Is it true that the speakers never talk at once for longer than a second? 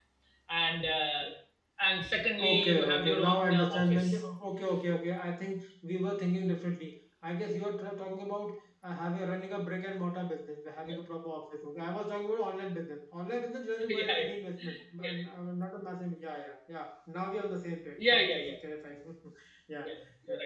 No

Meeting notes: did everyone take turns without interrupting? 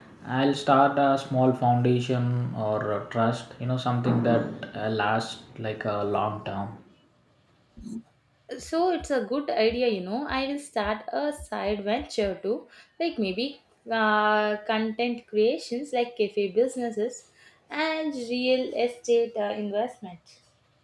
Yes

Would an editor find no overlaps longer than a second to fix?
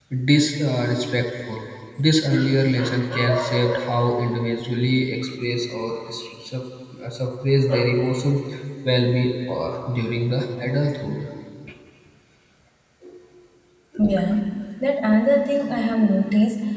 Yes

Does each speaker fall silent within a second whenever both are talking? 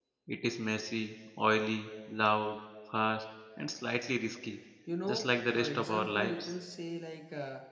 No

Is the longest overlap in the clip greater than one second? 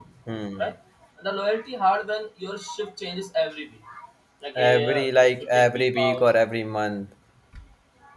Yes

